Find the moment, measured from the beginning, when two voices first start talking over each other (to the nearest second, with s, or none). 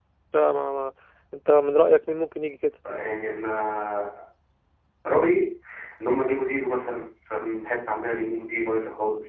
none